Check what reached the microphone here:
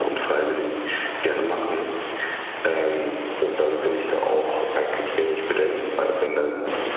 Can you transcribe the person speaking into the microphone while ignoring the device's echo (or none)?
none